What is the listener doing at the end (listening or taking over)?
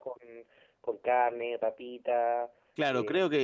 taking over